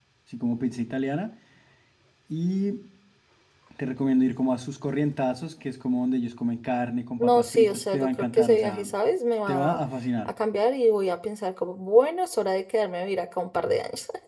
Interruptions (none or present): present